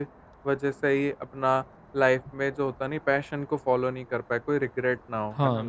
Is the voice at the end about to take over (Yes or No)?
Yes